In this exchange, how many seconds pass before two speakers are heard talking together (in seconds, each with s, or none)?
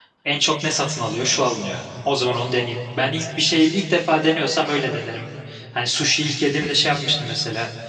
none